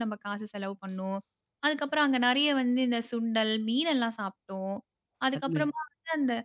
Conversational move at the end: listening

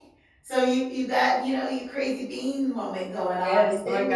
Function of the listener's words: taking over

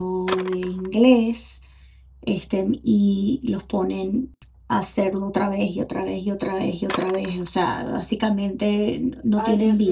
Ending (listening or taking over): taking over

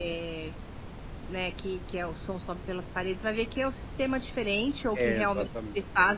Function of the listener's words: listening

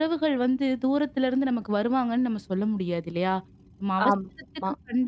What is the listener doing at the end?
listening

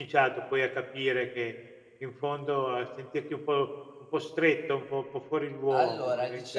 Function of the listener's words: taking over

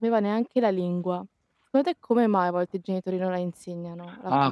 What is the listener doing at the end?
taking over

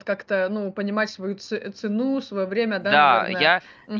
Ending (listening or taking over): taking over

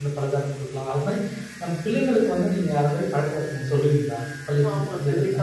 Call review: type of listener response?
taking over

